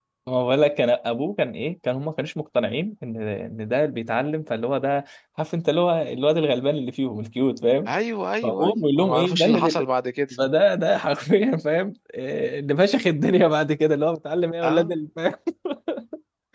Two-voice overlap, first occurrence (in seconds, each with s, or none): 8.4 s